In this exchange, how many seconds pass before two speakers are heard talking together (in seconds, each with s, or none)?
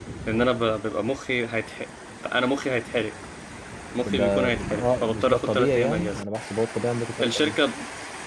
4.0 s